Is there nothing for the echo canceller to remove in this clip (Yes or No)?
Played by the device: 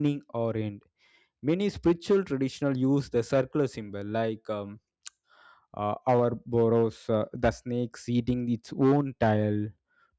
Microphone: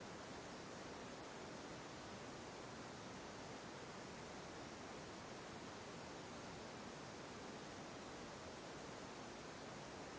Yes